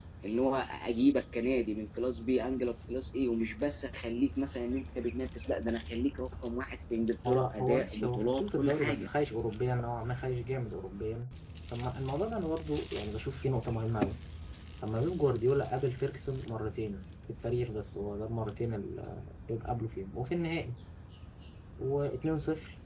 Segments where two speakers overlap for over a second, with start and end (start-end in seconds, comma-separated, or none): 7.3-9.1